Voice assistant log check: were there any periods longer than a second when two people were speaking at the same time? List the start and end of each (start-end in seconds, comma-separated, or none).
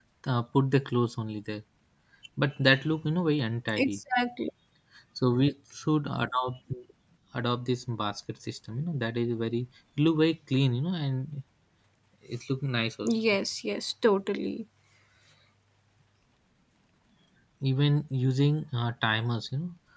none